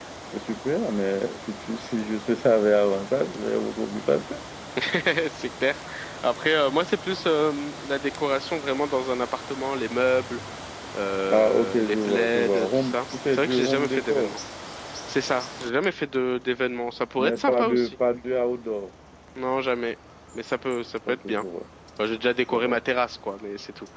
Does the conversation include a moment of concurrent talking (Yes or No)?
Yes